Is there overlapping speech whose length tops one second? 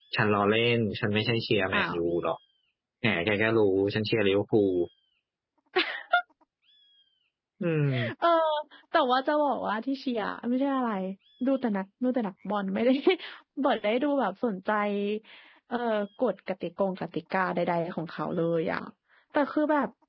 No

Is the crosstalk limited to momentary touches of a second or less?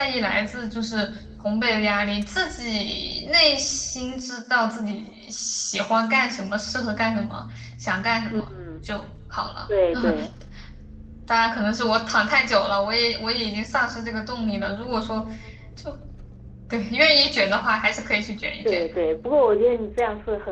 Yes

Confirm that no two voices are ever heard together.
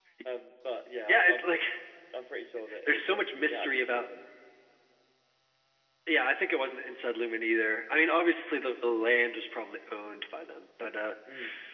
No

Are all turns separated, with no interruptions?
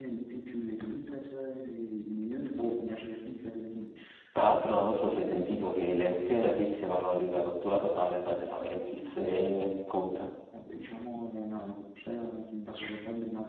Yes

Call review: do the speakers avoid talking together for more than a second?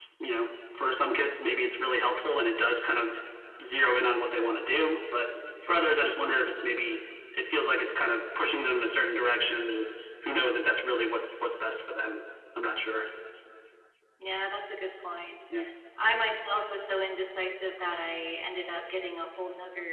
Yes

